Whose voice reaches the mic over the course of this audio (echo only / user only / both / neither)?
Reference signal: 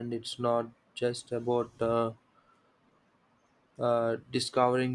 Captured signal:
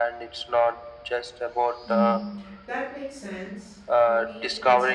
both